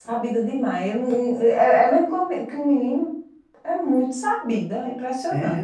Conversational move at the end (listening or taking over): taking over